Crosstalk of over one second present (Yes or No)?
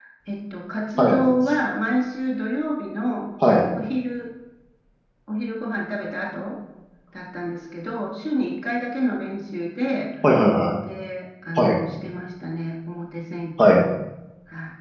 No